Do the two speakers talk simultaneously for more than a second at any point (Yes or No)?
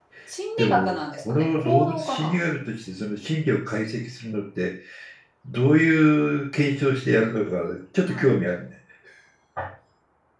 Yes